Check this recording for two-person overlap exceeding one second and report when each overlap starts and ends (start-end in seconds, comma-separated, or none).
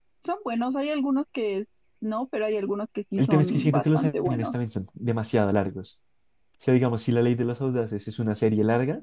3.2-4.5